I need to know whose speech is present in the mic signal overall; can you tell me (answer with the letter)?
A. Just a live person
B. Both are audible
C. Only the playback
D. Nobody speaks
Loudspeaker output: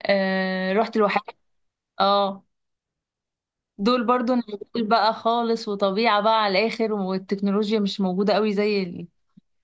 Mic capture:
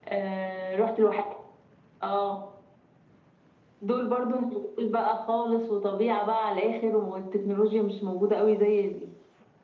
C